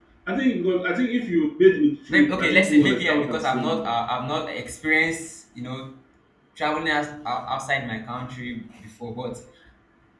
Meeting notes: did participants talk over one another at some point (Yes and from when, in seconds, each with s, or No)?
Yes, from 2.1 s